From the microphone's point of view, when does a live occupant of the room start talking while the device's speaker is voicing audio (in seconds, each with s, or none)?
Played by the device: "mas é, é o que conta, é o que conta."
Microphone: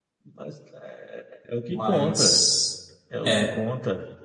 1.7 s